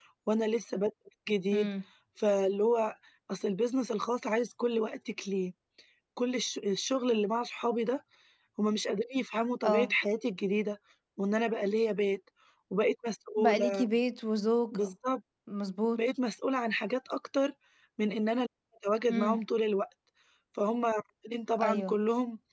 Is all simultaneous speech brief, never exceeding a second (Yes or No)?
Yes